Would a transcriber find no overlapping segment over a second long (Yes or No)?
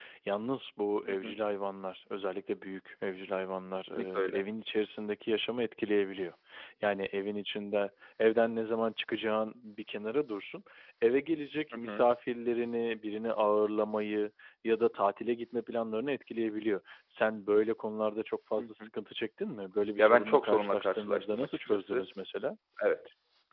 No